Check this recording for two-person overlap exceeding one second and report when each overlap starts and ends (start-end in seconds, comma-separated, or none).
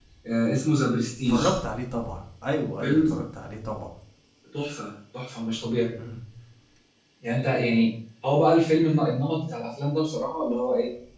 none